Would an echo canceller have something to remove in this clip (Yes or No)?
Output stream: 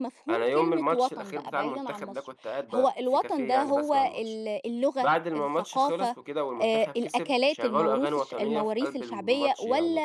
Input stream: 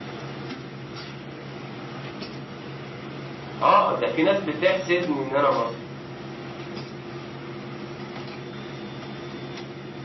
No